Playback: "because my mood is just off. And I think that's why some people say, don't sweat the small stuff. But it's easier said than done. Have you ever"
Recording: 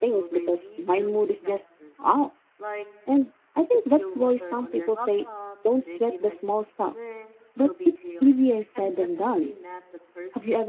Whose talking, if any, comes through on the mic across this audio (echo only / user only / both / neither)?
both